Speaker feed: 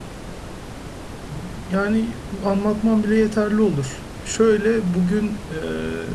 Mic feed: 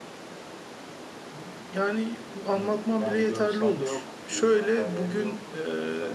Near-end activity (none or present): present